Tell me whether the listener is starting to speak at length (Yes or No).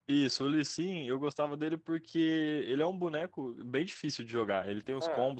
No